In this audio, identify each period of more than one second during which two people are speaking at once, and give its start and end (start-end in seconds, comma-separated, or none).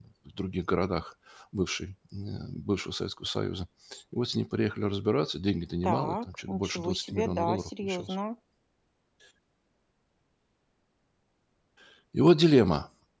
5.8-8.2